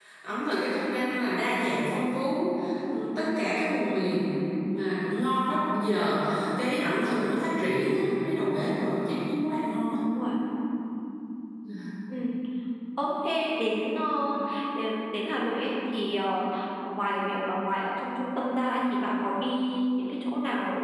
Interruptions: none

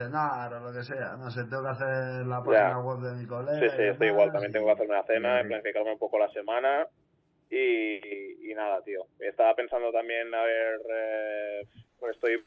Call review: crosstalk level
present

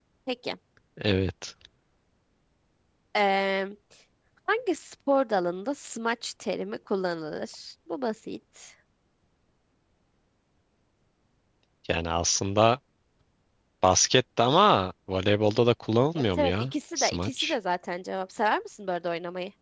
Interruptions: present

